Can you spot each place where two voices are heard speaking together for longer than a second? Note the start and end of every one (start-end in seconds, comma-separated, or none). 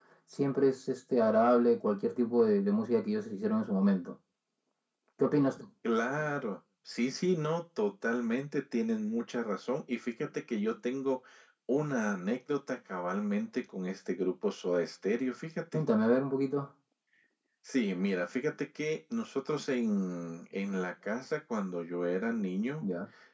none